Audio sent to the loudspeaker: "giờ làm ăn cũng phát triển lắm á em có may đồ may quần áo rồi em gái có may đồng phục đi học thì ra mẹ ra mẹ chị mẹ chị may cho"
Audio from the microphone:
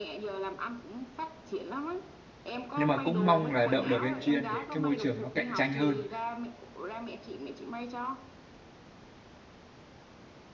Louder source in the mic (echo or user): user